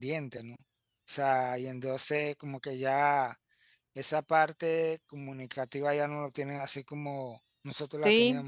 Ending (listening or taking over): taking over